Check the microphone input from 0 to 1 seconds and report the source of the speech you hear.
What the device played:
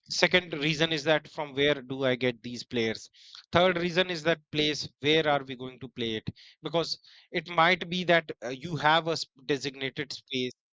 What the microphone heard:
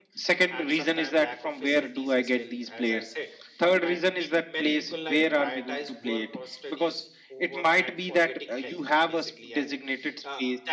both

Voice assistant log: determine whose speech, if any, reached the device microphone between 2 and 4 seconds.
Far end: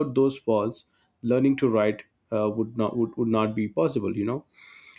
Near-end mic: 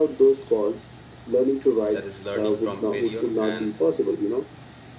both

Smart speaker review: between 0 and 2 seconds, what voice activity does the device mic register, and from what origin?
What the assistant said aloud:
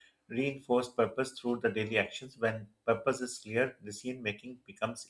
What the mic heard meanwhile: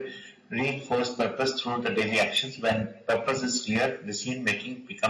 echo only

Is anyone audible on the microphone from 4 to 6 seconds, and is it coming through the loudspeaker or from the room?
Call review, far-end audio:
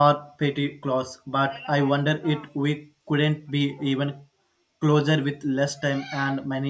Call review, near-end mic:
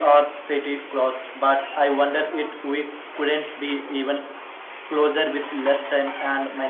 echo only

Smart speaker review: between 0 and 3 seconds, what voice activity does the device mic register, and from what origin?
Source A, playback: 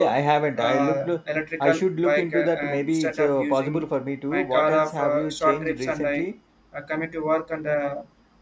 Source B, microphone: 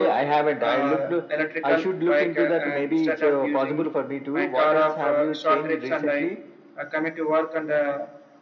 echo only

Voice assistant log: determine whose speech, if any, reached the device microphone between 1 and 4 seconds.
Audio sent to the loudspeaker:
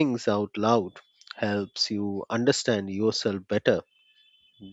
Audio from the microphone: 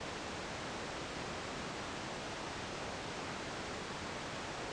neither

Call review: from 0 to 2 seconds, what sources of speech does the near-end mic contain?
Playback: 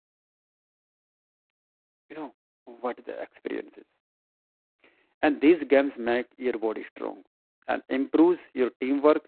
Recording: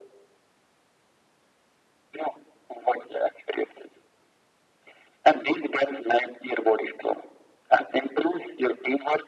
neither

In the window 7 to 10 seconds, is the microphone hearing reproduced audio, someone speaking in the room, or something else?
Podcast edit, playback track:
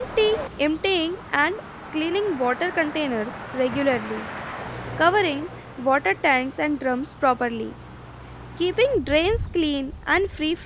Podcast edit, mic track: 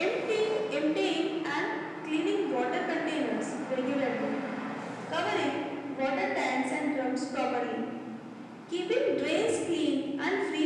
echo only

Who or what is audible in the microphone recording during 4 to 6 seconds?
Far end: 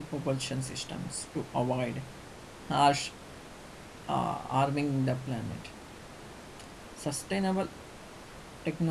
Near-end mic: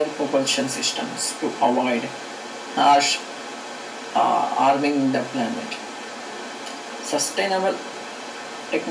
echo only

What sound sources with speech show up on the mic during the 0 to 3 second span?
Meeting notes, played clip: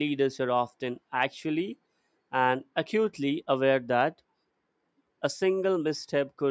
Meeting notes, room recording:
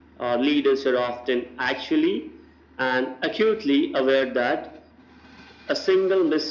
echo only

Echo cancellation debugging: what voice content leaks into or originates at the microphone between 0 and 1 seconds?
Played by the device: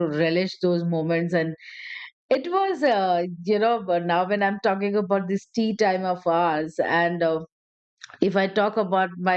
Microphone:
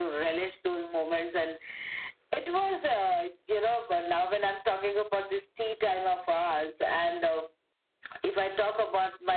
echo only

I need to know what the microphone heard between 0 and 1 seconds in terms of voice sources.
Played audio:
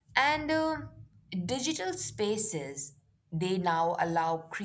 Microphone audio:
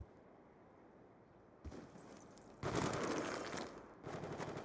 neither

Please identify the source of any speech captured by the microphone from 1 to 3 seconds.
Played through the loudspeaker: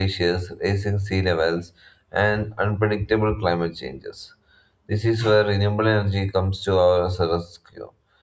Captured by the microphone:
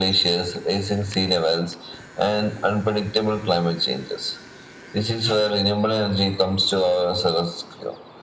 echo only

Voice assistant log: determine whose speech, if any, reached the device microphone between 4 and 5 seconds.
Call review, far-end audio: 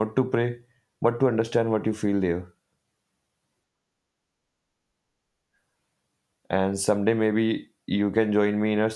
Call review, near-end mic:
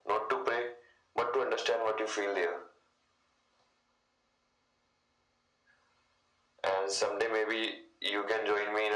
neither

